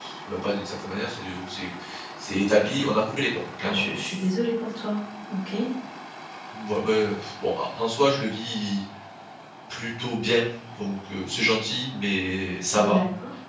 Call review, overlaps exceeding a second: none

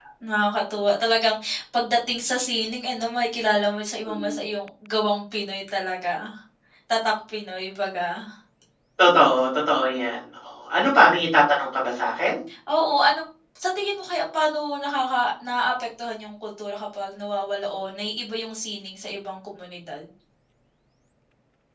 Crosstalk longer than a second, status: none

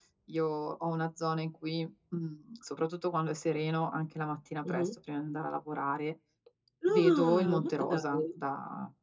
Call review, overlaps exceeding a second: present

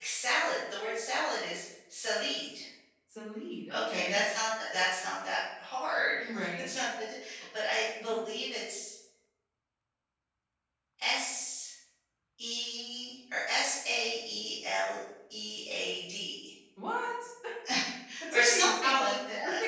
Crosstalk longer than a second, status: present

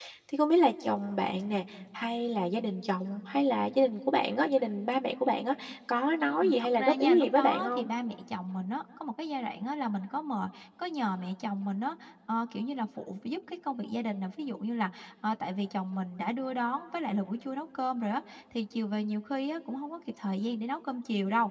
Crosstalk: present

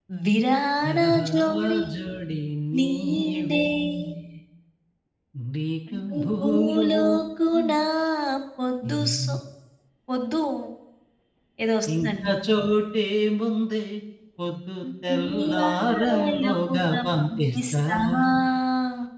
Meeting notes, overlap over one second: present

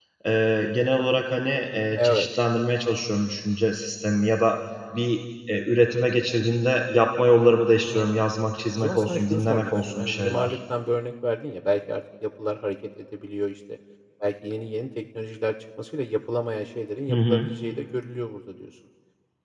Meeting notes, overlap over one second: present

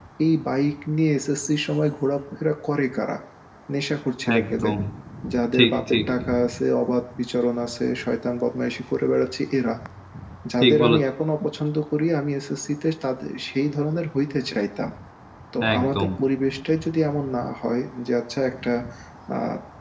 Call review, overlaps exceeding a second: none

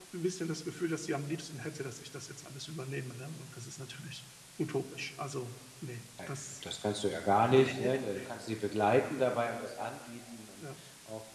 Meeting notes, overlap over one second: none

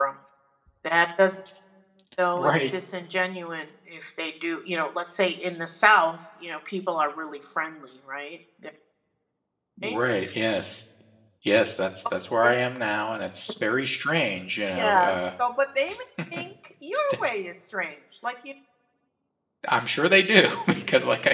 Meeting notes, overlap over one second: none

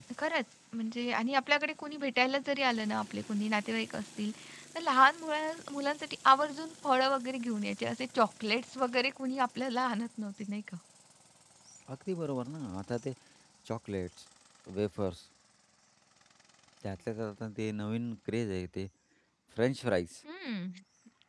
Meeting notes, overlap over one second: none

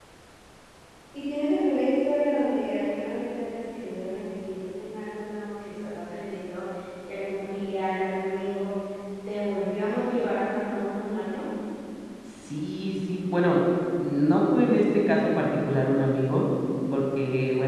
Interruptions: none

